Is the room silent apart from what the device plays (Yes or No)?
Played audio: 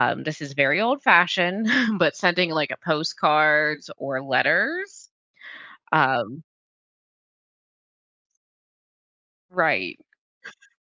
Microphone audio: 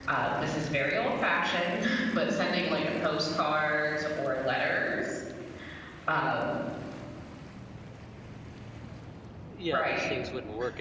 No